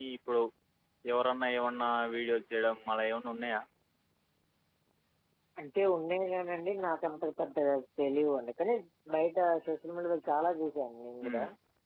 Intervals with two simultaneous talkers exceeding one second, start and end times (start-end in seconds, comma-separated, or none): none